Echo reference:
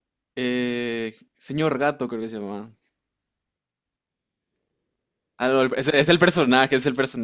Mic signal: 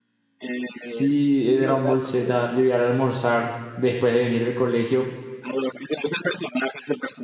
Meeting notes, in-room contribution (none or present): present